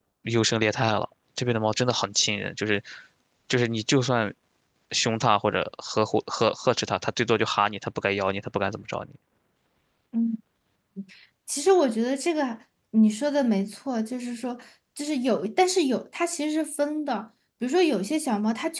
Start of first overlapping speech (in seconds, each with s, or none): none